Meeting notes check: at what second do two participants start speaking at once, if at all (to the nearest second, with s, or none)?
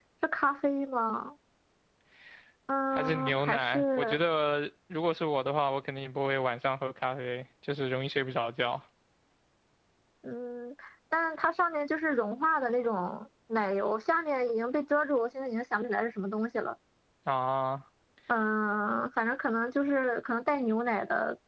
3 s